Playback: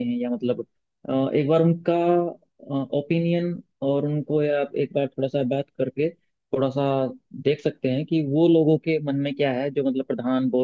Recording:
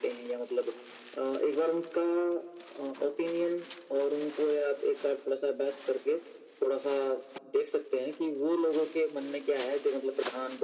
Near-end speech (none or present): none